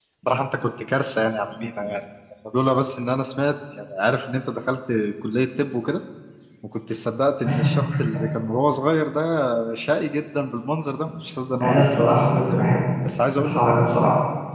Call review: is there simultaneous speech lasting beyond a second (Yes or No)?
No